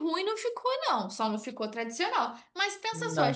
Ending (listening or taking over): listening